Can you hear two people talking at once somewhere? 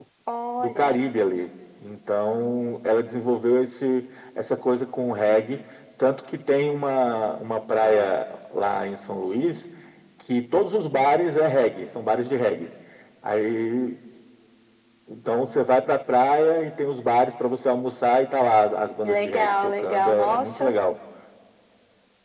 Yes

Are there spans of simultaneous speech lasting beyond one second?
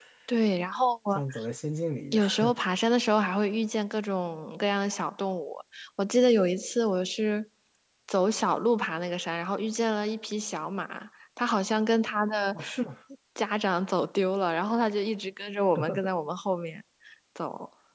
No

